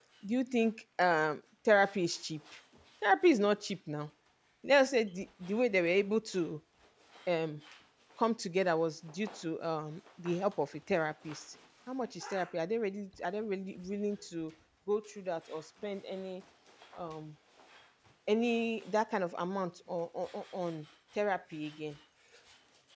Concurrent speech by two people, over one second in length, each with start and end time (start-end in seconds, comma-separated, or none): none